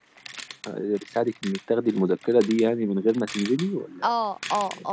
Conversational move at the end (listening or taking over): taking over